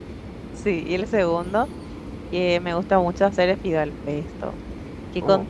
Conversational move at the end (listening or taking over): listening